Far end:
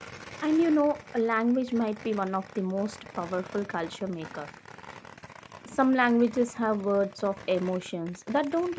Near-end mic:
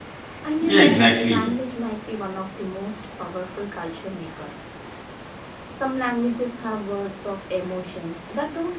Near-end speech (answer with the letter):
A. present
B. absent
A